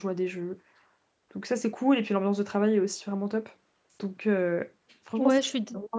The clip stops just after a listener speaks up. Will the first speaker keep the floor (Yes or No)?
No